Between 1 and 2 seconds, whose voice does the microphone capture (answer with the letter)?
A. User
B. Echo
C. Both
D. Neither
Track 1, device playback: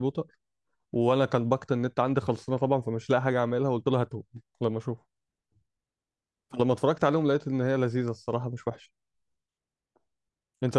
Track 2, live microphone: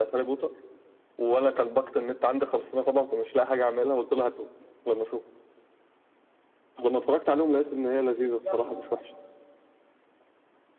B